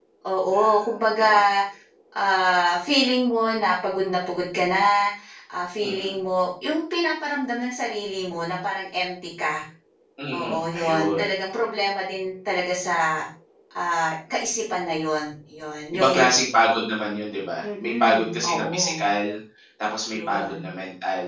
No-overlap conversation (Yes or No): No